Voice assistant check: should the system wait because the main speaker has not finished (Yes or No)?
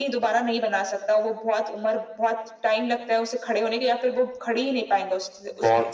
No